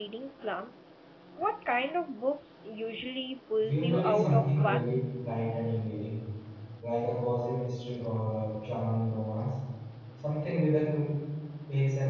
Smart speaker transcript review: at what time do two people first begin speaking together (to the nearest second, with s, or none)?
4 s